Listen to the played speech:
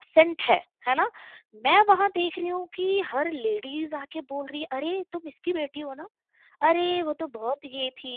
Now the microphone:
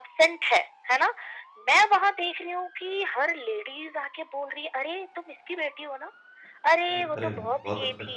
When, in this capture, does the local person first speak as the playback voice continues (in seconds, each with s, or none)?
6.9 s